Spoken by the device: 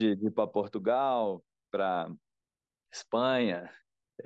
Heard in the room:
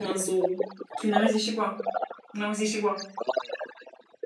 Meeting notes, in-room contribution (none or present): present